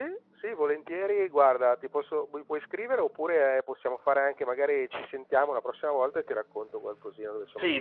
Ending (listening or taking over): taking over